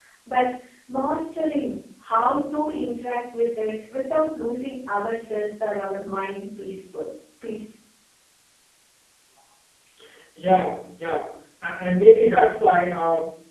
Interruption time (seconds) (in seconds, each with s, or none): none